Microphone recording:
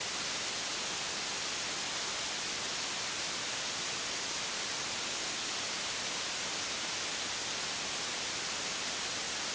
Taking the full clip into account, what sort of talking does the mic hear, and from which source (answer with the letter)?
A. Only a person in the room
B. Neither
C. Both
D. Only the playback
B